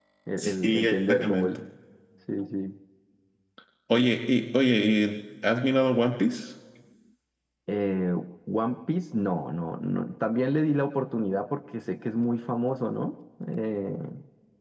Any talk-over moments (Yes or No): Yes